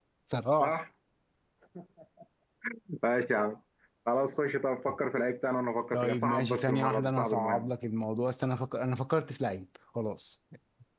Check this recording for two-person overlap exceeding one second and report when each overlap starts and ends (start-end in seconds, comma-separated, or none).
5.9-7.7